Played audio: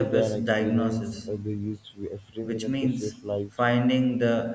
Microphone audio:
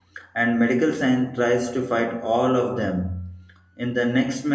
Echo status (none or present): none